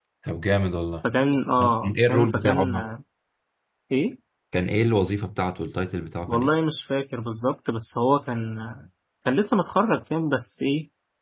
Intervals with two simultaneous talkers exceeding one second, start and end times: 1.6-2.9

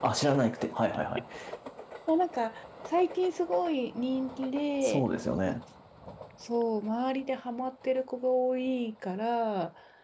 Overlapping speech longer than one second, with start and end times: none

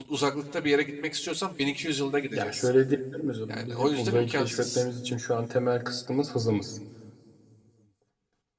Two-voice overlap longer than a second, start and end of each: 3.5-4.8

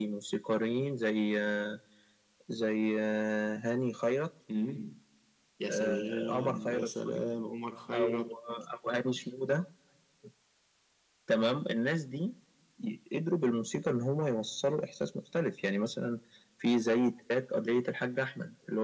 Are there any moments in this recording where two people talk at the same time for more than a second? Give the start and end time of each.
5.7-7.2

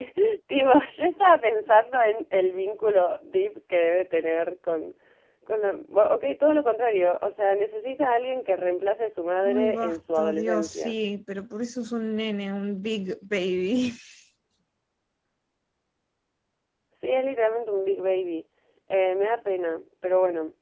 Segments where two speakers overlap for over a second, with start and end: 9.4-10.9

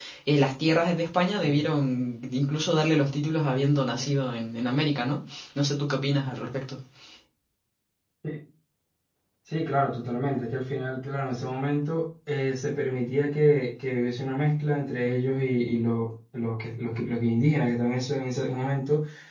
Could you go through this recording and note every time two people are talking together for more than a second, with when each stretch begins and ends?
none

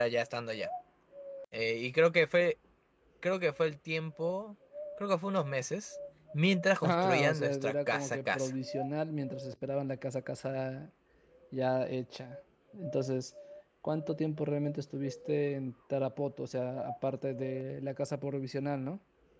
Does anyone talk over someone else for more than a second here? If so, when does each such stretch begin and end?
6.8-8.5

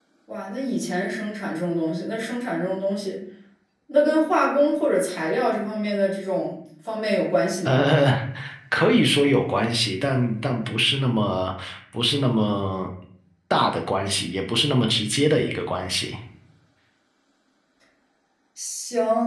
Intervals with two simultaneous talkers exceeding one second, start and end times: none

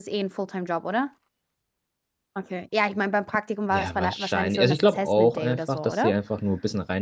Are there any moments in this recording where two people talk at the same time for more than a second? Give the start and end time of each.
3.7-6.1

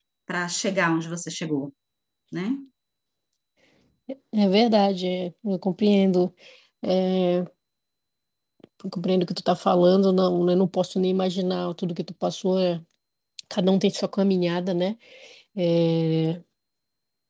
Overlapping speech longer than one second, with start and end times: none

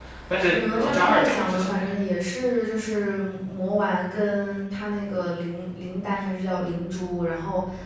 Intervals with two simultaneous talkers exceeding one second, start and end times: 0.5-1.9

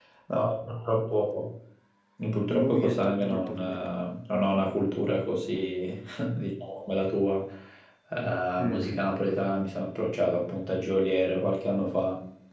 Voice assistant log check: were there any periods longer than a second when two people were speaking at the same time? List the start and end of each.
2.5-3.9

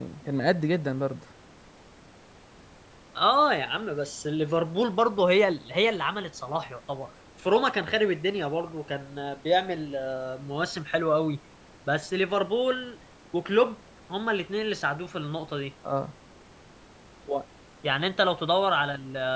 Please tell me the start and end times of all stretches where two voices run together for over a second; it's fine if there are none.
none

